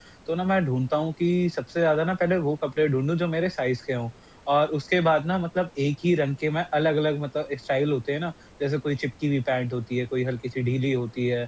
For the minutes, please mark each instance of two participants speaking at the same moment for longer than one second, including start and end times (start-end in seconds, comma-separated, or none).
none